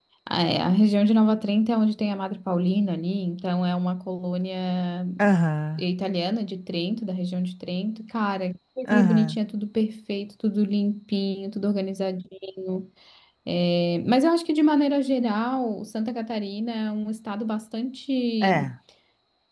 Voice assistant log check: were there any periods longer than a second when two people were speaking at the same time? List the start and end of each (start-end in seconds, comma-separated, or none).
none